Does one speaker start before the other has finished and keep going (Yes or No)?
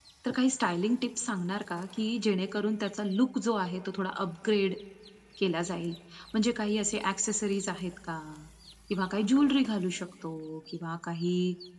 No